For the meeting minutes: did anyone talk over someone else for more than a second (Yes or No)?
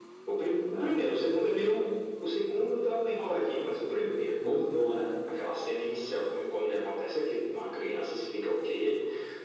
Yes